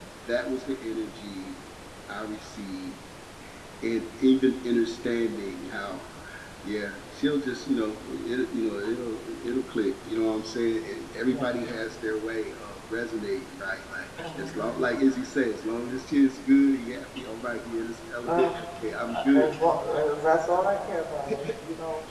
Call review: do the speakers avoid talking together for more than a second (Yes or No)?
Yes